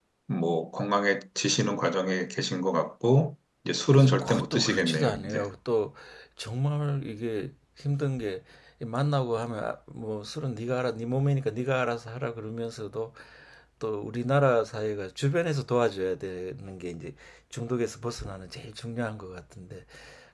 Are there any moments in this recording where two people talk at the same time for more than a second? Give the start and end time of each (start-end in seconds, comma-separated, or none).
4.2-5.4